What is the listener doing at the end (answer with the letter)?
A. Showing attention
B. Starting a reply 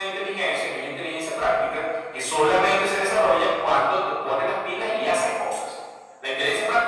A